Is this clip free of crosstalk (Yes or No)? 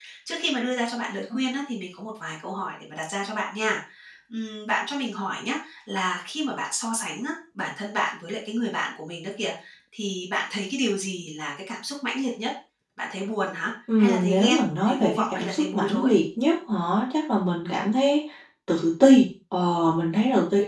No